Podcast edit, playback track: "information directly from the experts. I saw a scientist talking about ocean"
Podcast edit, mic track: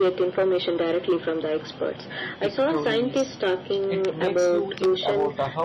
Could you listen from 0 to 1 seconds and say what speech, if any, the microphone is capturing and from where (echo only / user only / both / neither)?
echo only